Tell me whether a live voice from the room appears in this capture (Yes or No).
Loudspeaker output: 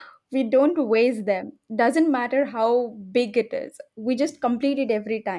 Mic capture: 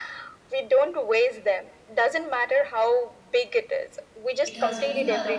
Yes